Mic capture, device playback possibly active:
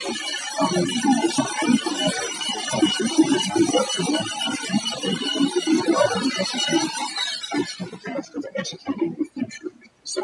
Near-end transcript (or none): none